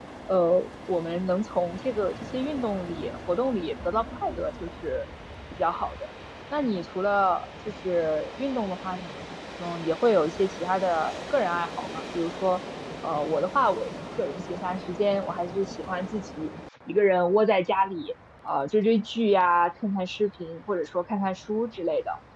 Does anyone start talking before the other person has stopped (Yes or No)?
No